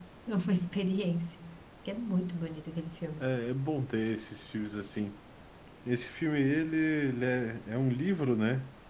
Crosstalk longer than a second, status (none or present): none